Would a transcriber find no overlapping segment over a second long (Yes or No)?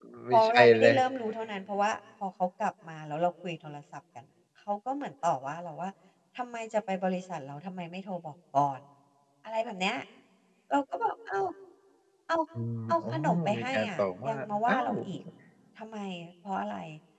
No